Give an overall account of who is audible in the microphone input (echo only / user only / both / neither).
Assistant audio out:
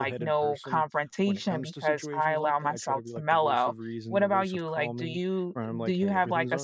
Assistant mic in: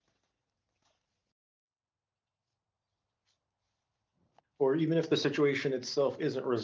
user only